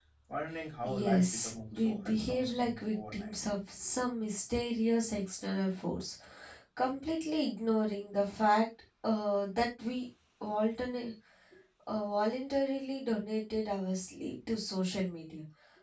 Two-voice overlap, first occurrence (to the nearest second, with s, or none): 1 s